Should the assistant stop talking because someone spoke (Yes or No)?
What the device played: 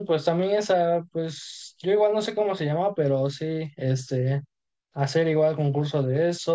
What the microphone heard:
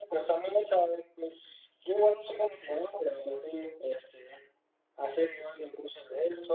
No